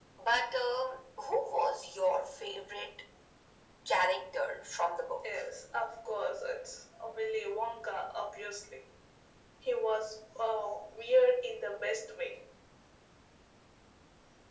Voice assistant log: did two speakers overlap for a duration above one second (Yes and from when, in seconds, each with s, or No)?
No